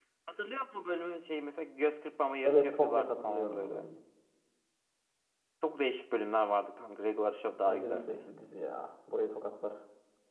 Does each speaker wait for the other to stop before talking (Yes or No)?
No